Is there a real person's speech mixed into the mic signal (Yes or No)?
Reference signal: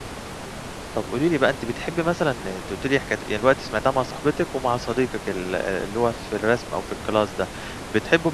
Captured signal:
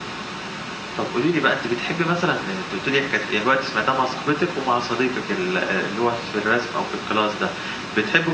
No